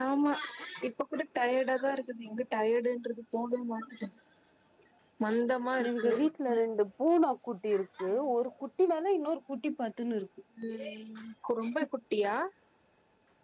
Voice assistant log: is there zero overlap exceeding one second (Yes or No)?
Yes